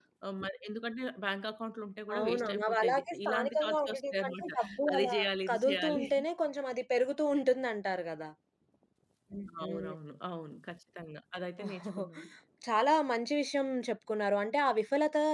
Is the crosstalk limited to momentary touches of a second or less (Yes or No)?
No